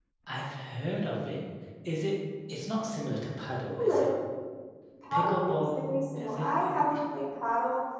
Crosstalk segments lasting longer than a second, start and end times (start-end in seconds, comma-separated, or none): 5.1-6.7